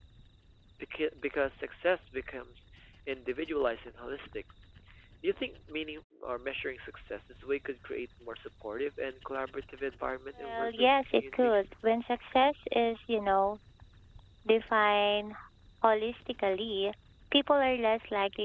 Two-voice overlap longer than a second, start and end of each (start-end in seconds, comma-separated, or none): 10.4-11.6